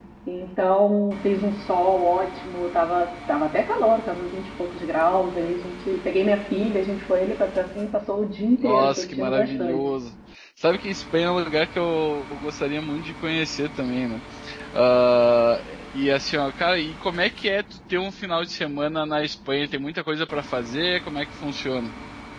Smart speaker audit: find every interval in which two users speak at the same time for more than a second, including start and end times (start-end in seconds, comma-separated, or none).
8.6-9.8